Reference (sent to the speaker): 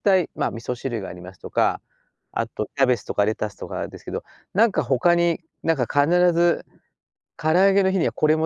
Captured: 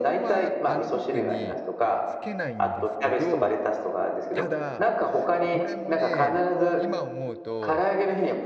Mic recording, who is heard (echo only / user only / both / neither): both